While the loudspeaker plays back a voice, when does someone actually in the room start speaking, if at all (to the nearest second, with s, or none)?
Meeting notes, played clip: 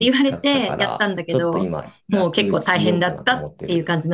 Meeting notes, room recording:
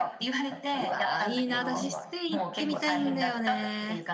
1 s